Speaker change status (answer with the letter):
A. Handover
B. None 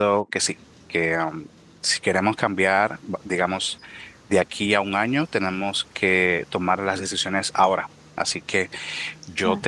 B